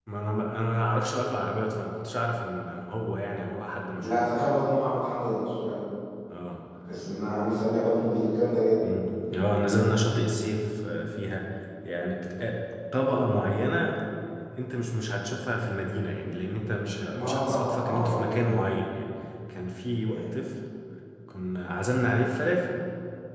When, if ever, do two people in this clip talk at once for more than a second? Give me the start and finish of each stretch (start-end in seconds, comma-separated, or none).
17.1-18.6